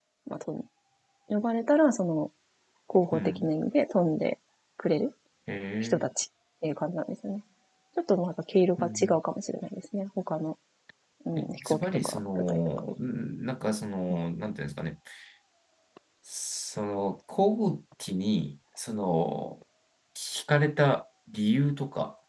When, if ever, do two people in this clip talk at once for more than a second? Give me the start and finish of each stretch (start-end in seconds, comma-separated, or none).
11.4-12.6